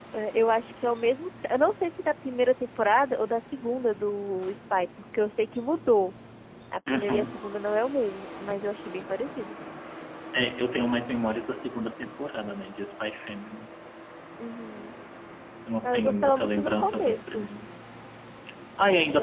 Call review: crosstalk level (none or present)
present